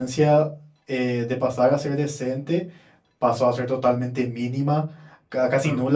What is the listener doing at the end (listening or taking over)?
listening